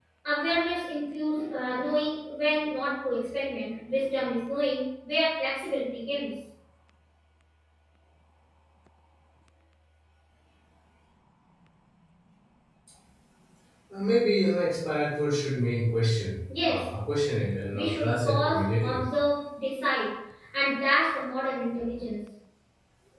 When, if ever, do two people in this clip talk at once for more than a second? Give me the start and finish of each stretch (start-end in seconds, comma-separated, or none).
17.7-19.1